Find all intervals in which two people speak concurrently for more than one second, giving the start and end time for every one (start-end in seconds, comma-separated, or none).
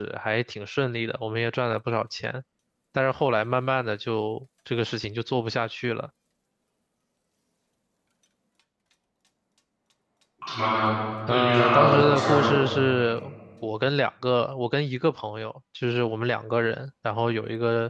11.3-12.6